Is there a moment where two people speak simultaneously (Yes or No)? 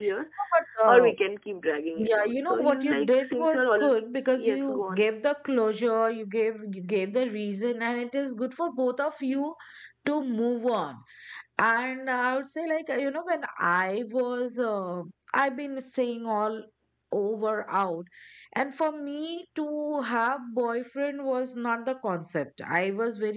Yes